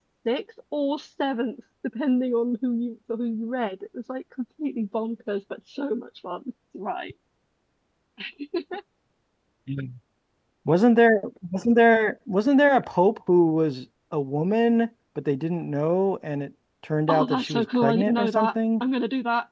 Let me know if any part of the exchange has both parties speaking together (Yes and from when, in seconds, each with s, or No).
Yes, from 17.1 s